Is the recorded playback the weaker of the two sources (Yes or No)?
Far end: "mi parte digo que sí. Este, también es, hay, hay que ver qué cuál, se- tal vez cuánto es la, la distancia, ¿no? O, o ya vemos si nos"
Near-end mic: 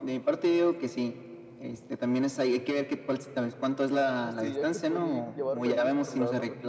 No